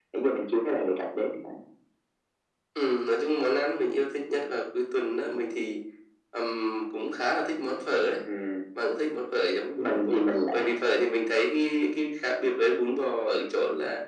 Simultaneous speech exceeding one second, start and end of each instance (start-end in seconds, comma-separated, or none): none